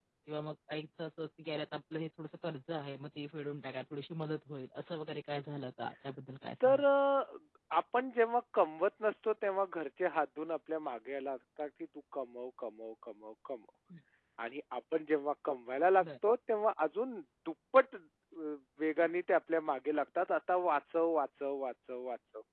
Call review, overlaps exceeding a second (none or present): none